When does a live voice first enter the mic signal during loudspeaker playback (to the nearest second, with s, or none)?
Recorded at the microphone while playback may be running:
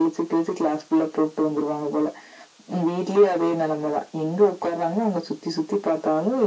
none